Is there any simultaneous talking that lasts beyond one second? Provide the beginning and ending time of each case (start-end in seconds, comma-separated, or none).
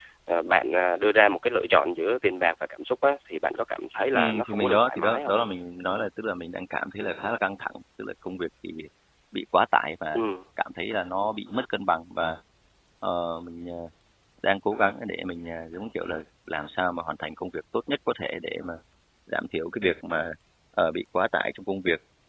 4.1-5.3